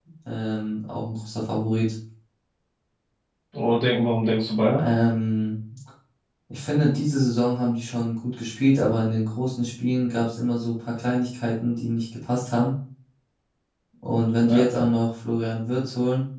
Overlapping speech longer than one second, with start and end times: none

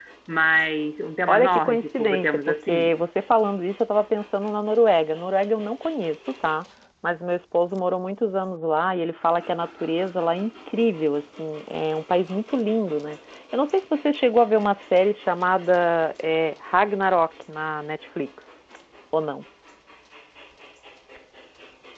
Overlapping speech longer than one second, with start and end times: 1.3-2.9

